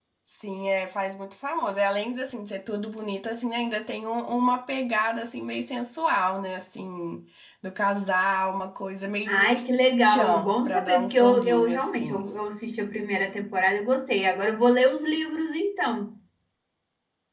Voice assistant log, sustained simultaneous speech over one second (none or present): present